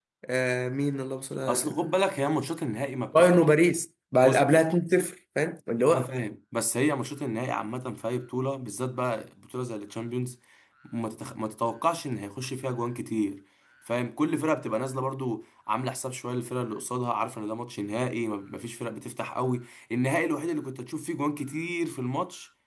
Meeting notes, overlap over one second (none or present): none